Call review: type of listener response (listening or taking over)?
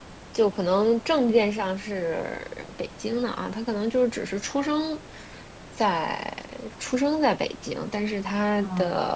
listening